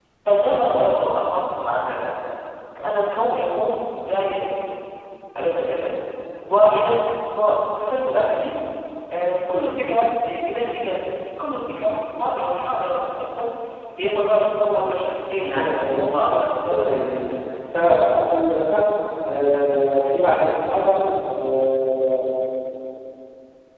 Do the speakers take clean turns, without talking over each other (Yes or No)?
No